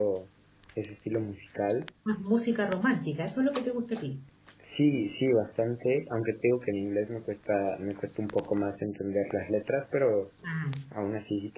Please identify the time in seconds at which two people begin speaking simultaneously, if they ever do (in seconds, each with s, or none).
none